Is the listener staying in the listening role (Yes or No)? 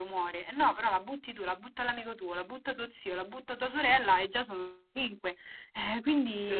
No